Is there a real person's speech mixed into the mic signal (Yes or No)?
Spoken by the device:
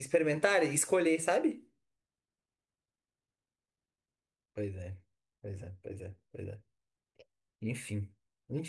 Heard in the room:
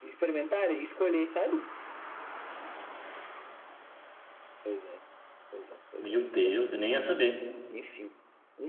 Yes